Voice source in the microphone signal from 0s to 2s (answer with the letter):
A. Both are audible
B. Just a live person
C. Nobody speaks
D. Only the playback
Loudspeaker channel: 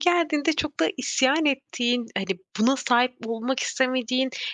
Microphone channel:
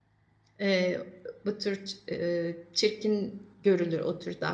B